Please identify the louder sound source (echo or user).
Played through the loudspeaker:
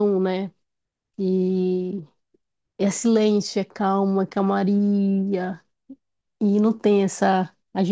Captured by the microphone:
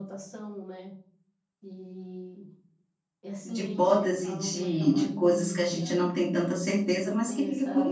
user